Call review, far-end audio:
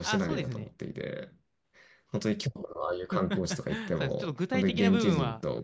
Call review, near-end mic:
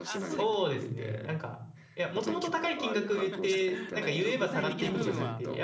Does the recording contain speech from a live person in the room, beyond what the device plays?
Yes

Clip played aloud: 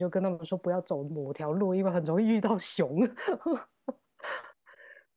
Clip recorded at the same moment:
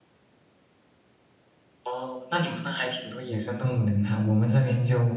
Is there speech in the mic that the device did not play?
Yes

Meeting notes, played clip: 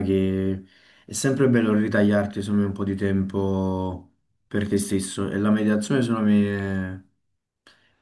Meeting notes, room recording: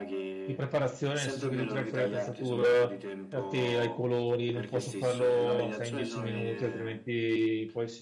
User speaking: Yes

